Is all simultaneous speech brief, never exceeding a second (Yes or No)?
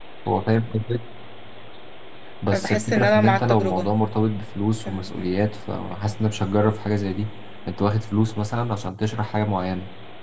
No